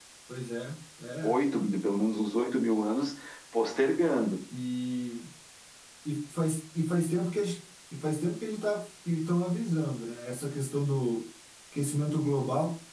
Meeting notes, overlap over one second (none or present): none